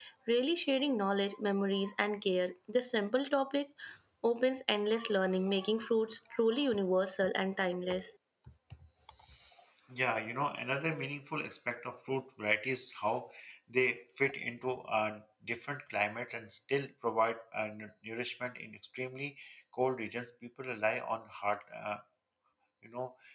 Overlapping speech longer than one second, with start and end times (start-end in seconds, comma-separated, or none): none